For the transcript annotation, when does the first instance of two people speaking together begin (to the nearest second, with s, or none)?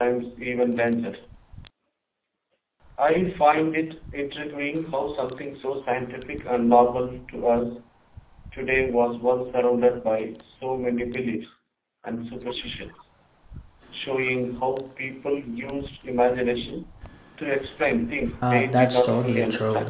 18 s